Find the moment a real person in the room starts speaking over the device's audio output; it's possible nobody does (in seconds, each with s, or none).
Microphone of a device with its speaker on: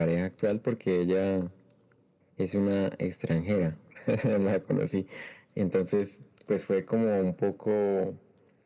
none